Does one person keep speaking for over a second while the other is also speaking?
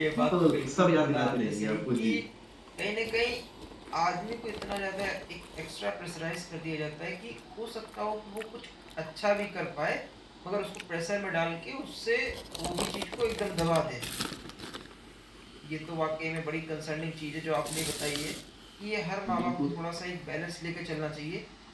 Yes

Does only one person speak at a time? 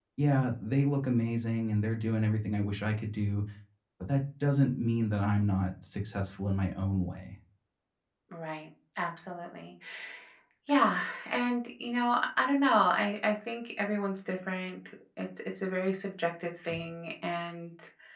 Yes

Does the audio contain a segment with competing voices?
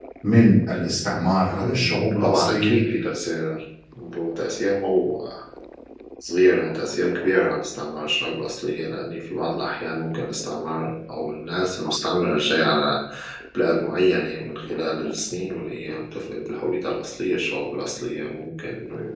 Yes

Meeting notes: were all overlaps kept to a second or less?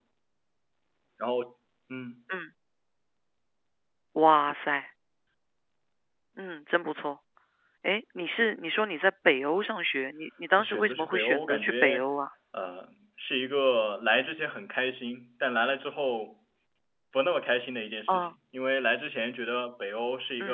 No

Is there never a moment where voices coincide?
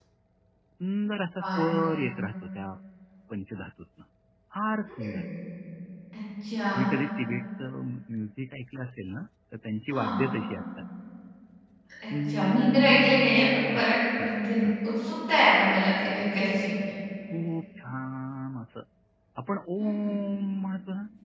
No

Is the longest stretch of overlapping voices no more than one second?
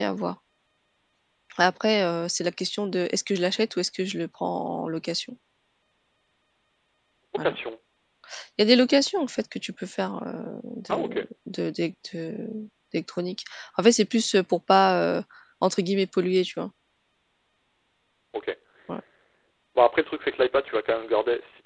Yes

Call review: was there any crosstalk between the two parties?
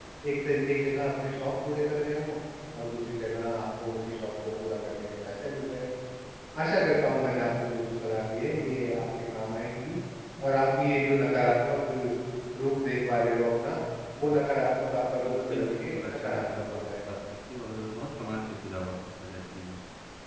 Yes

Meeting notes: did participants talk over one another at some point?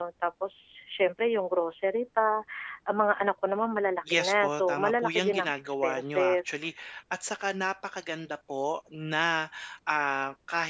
Yes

